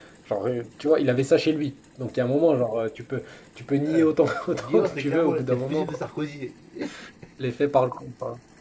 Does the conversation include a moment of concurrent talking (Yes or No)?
Yes